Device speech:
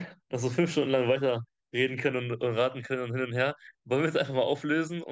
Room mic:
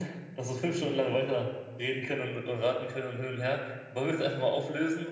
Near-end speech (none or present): none